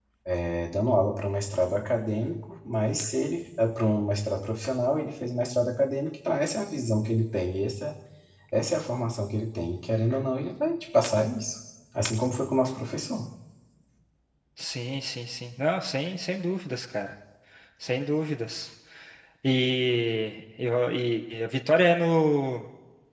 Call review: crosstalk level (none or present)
none